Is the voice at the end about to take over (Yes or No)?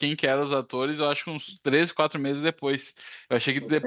No